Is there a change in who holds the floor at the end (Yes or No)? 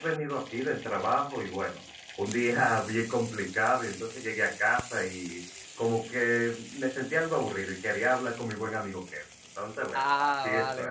Yes